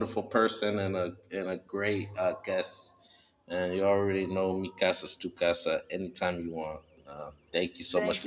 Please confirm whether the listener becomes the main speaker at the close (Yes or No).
Yes